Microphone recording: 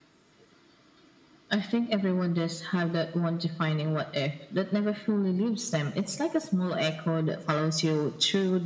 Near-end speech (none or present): none